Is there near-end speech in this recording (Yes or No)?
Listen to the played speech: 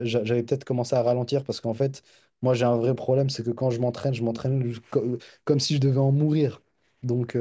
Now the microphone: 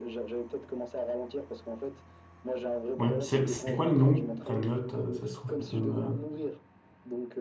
Yes